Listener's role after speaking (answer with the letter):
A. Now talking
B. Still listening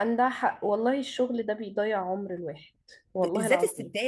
A